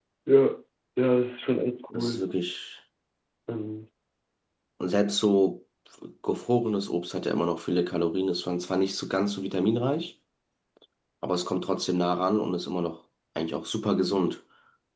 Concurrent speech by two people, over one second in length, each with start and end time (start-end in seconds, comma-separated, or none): none